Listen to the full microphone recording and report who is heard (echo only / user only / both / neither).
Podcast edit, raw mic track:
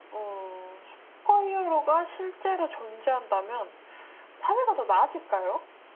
echo only